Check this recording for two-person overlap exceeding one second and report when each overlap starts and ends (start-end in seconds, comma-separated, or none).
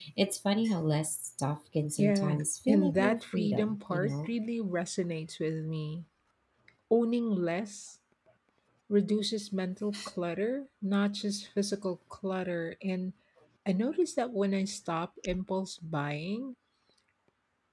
2.0-4.3